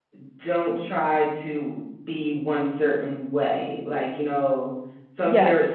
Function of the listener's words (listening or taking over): listening